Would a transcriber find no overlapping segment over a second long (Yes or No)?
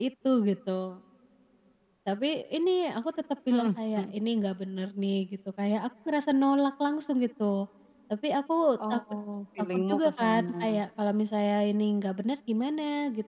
No